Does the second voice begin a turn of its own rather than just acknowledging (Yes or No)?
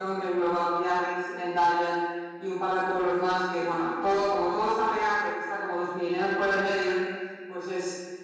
No